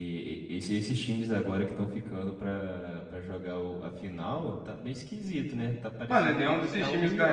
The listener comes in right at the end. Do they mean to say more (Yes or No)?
Yes